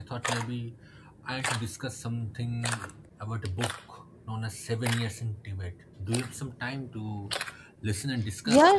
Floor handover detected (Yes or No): Yes